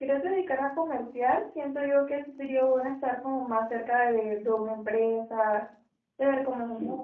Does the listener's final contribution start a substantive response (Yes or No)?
No